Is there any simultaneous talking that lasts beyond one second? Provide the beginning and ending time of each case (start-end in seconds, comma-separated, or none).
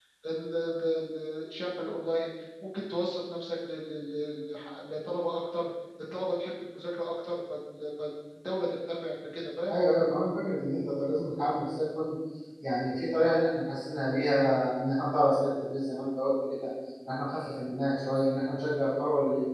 none